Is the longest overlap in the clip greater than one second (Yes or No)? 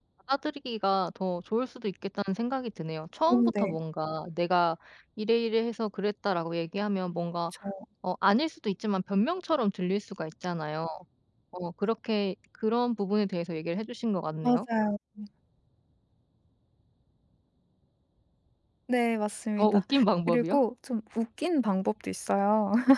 No